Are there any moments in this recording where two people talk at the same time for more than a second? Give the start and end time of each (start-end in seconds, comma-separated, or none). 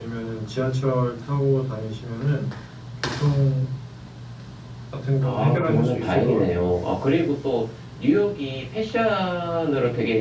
5.2-6.8